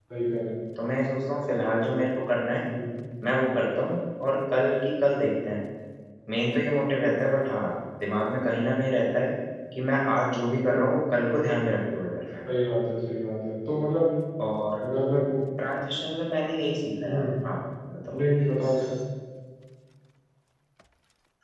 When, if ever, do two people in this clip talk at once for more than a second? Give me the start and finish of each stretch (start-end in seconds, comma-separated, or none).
none